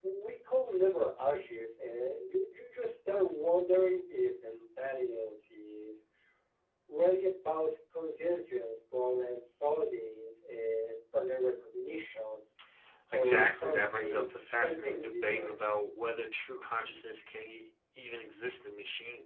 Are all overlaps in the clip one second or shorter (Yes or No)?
No